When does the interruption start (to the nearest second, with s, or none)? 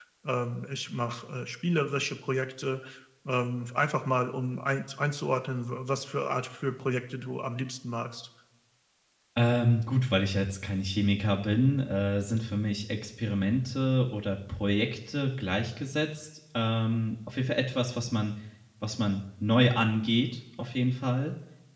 none